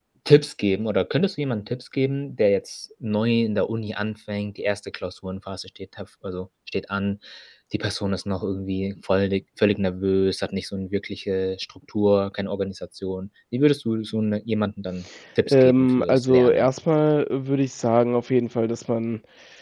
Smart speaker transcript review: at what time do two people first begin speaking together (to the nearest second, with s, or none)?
15 s